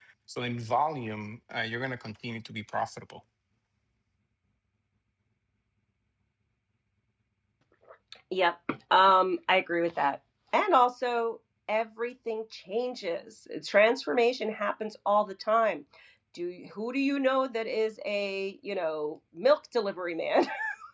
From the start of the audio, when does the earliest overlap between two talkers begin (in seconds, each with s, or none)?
none